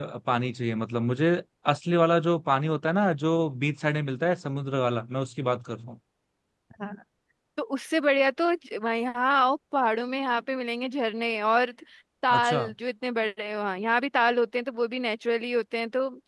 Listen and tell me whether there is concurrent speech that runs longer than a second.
No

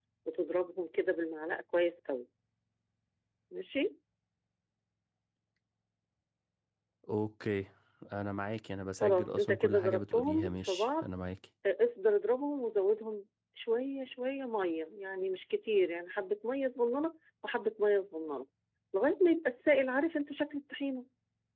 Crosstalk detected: Yes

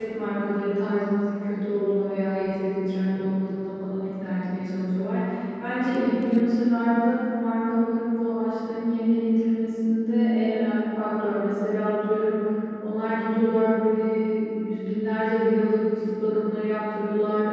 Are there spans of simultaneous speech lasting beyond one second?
No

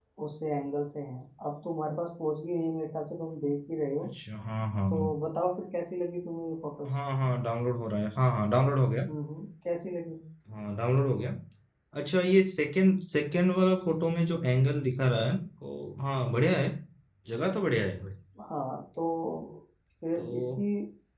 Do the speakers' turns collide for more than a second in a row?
No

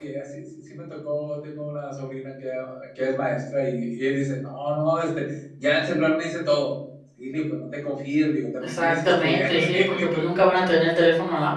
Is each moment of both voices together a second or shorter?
No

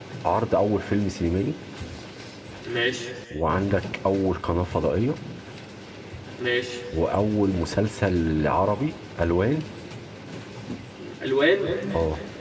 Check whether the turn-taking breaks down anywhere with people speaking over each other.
No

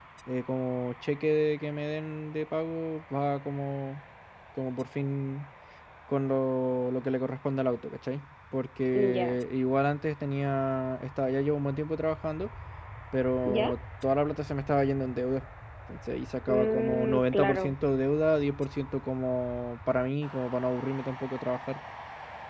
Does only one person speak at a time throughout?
No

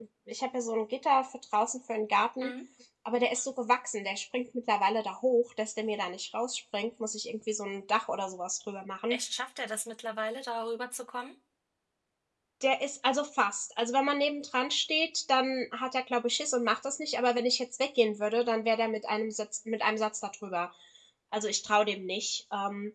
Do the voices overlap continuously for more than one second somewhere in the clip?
No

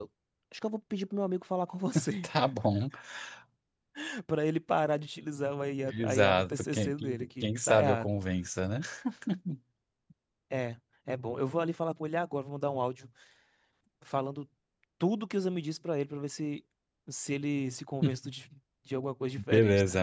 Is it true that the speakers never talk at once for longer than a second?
No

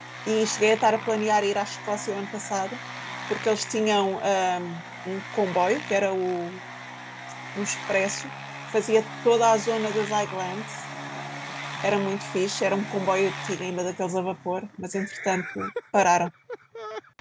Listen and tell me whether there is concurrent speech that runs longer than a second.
No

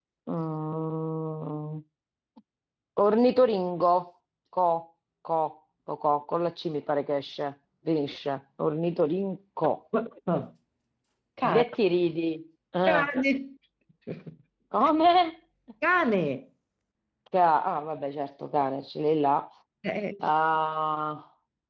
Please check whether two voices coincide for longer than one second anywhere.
No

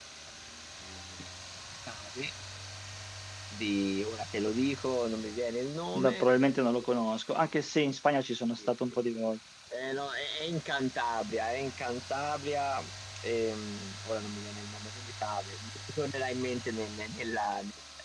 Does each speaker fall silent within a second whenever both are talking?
Yes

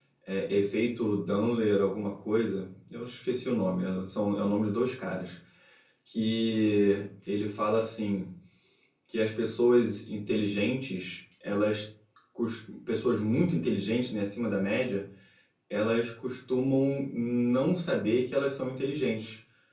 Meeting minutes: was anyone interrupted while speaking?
No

